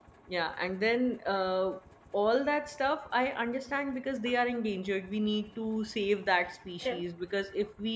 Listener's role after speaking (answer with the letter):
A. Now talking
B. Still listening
B